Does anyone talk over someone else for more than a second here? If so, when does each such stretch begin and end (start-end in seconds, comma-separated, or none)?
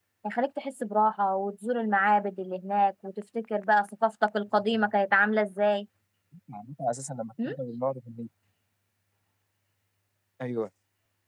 none